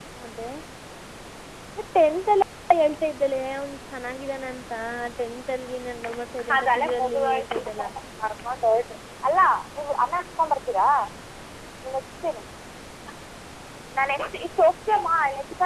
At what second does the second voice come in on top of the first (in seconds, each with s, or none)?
6.5 s